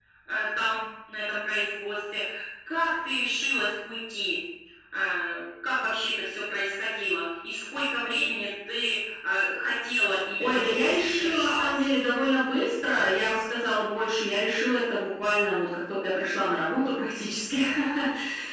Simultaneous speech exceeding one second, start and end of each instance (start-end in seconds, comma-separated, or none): 10.4-11.8